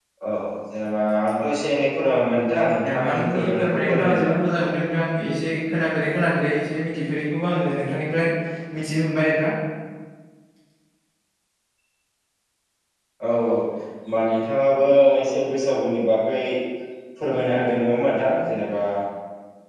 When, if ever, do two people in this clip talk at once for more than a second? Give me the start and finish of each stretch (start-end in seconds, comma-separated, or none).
2.9-4.3